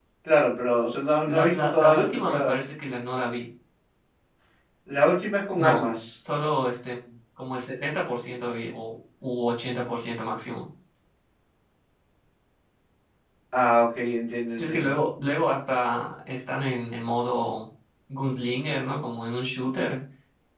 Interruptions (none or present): present